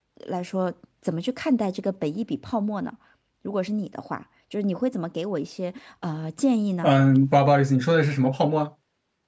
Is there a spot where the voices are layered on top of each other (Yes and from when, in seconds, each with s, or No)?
No